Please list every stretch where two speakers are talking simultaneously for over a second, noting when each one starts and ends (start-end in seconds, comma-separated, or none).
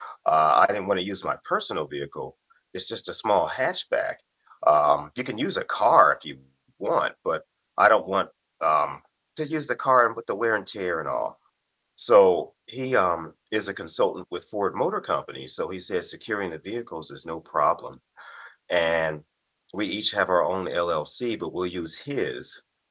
none